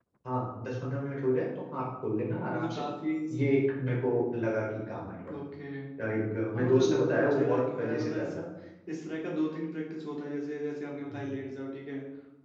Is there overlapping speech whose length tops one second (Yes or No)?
Yes